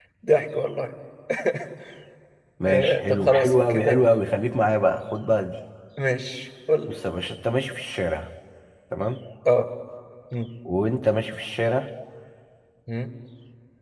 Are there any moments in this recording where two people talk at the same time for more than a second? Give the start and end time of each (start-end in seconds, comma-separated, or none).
2.7-4.0